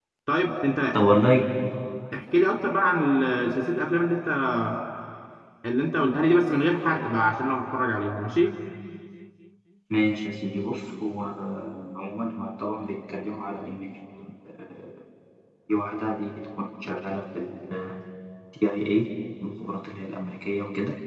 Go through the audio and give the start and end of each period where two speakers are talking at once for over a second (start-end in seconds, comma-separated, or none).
none